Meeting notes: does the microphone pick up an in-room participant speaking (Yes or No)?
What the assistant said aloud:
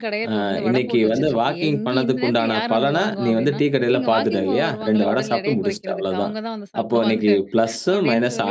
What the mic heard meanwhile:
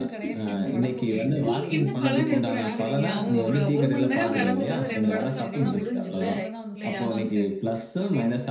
Yes